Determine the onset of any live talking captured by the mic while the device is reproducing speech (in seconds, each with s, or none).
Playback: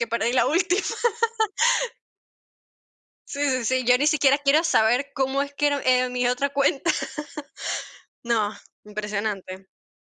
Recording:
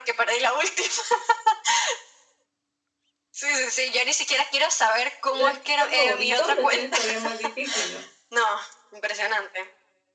5.3 s